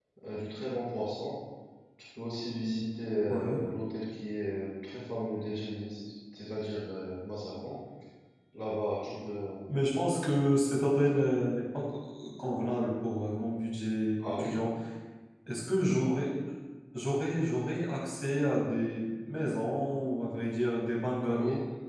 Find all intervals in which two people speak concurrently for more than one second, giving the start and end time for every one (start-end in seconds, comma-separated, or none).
none